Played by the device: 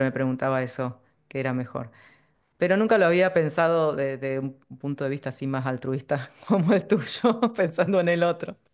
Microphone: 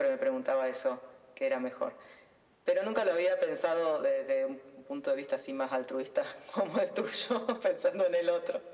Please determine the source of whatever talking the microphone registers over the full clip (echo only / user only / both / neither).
echo only